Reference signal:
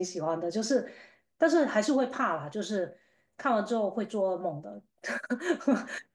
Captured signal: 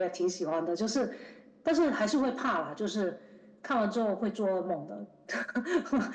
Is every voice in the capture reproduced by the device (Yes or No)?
Yes